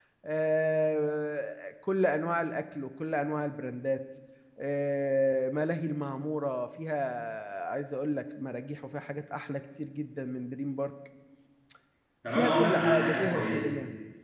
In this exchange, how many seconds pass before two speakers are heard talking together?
12.3 s

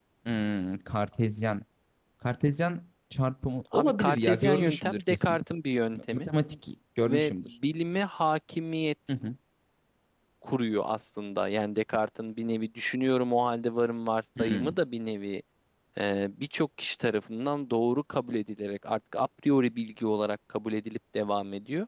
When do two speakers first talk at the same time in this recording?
3.7 s

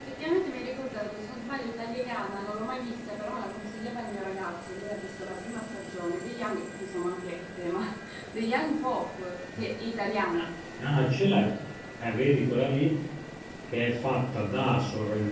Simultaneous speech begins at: none

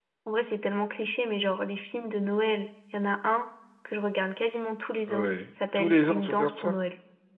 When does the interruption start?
5.1 s

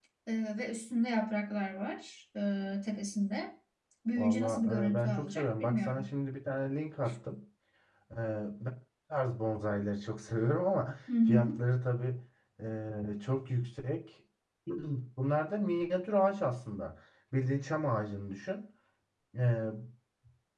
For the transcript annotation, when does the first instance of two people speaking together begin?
4.2 s

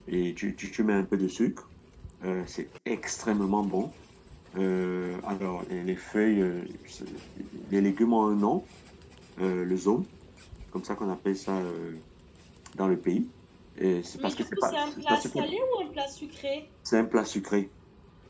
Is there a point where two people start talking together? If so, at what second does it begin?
14.2 s

